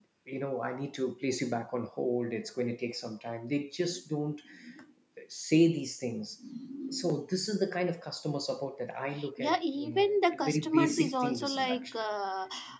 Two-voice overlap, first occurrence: 9 s

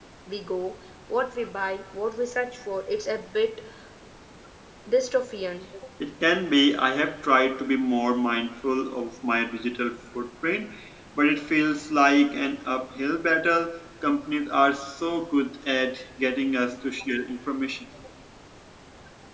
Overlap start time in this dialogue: none

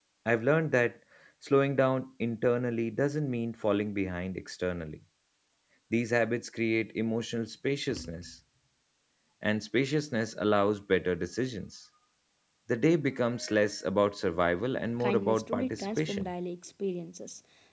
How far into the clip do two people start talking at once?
15 s

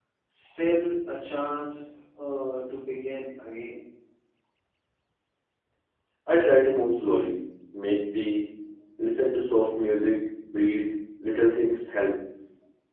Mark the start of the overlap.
none

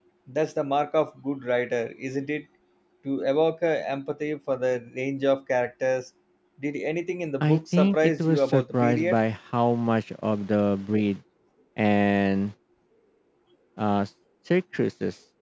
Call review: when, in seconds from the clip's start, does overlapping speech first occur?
7 s

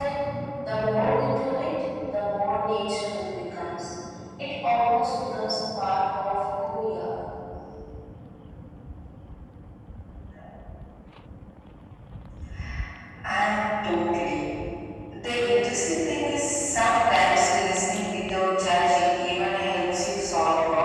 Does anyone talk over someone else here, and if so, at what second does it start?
none

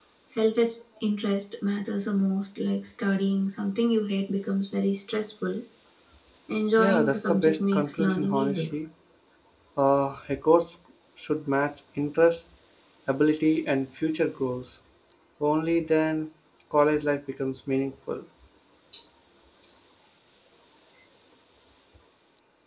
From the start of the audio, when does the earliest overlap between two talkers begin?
7 s

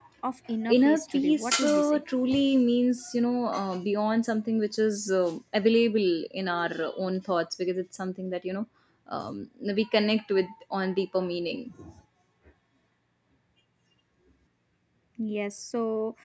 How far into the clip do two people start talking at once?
1 s

